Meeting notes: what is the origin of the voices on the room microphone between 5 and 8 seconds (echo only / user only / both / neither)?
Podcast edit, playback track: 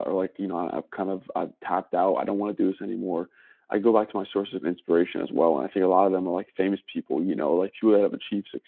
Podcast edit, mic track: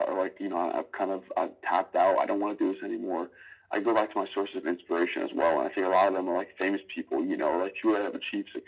echo only